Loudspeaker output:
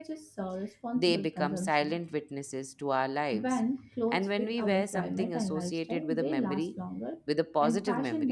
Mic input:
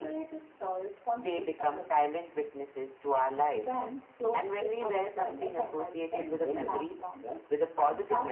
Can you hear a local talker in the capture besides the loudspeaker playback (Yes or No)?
No